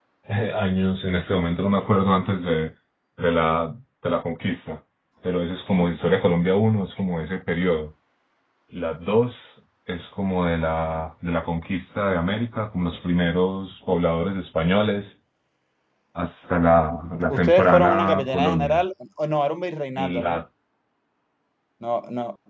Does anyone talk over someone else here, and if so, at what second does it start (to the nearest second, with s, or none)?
17 s